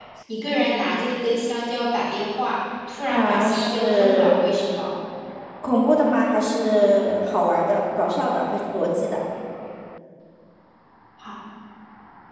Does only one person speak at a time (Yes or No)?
No